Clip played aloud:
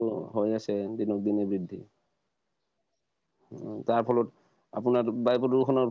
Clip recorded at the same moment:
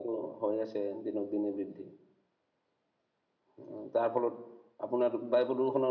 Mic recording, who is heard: echo only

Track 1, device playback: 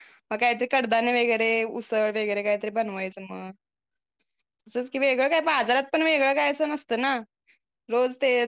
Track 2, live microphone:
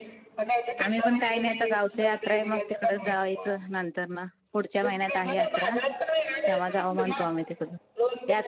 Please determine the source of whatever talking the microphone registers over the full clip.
both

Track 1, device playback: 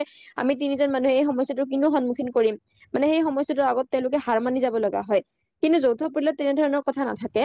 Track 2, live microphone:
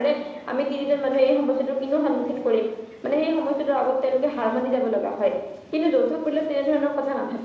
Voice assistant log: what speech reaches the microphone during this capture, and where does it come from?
echo only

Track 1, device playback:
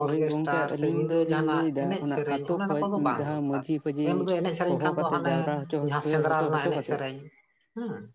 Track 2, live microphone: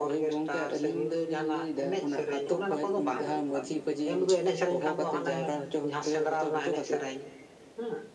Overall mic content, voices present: echo only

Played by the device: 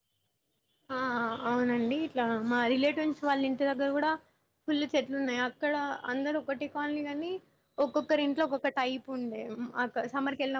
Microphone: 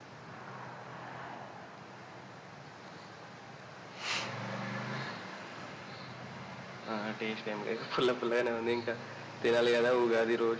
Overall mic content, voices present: user only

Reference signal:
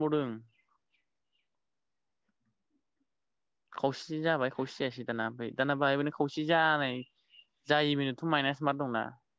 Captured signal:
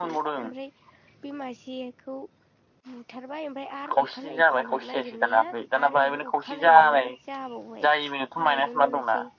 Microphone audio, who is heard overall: both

